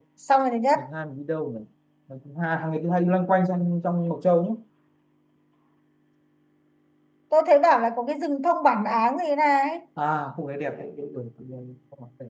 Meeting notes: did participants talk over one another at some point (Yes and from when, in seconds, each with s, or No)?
No